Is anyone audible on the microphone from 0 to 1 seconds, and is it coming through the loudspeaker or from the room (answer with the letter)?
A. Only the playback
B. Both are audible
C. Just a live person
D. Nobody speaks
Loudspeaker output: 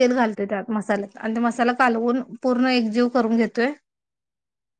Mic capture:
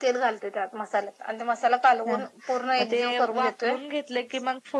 A